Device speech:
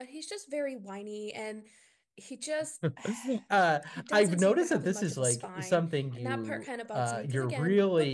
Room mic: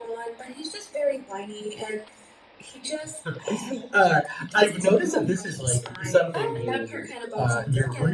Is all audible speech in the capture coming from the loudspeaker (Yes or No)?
No